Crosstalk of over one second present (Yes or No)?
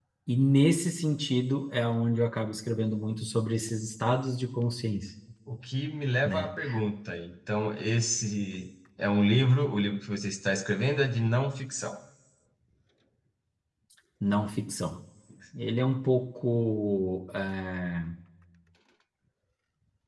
No